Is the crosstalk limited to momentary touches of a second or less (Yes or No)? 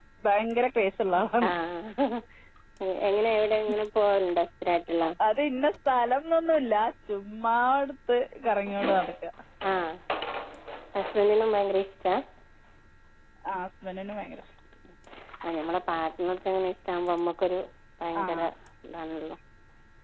Yes